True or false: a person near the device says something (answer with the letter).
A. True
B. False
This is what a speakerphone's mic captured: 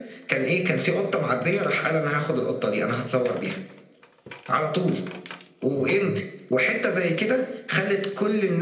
A